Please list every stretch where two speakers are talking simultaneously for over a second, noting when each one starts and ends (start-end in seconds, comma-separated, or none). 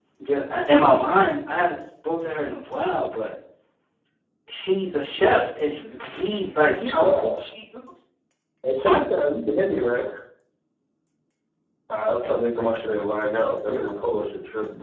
none